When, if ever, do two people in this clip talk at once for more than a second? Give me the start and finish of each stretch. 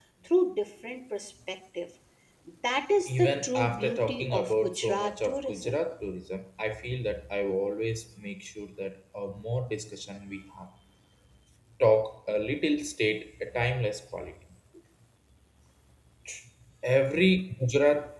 3.1-5.8

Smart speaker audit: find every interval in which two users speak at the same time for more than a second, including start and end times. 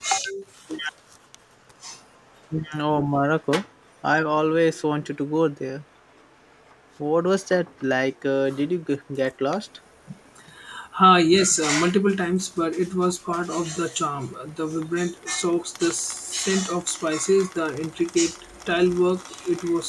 none

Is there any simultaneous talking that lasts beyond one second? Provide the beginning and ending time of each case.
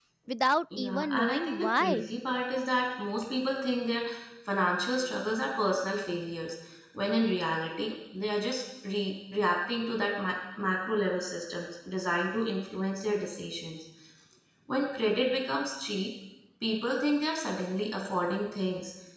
0.8-2.1

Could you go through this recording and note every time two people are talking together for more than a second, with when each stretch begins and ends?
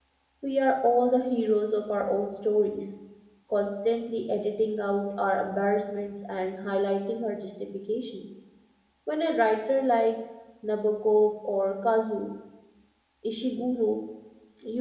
none

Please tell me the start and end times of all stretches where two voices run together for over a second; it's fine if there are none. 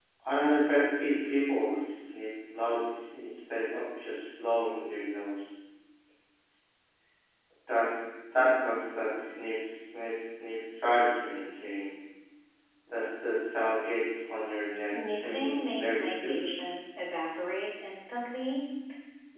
14.7-16.4

